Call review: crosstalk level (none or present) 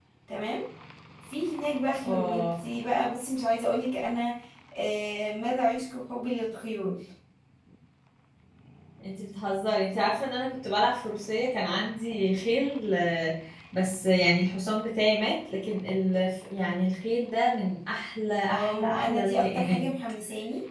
present